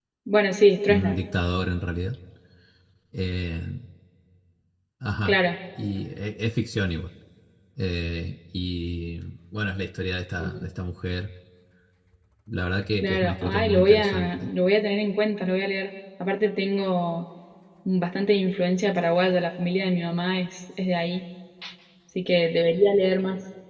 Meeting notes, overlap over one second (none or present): present